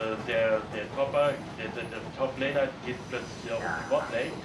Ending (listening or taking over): listening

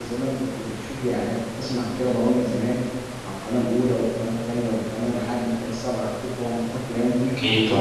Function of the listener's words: listening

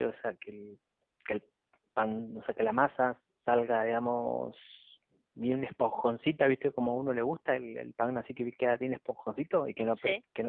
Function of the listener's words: listening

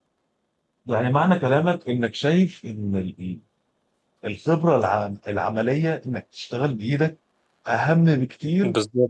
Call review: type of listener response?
listening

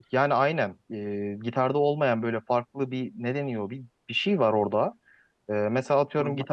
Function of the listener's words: listening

